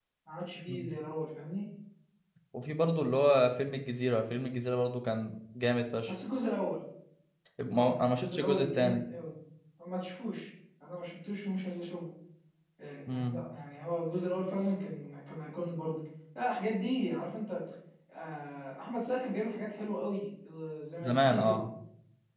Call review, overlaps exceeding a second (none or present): present